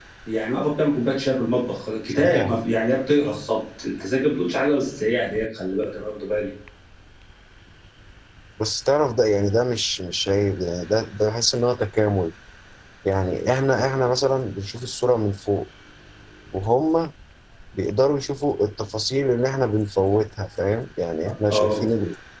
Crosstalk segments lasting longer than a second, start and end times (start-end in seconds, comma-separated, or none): none